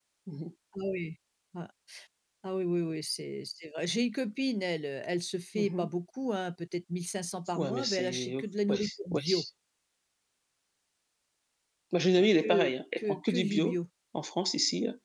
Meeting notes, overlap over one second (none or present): present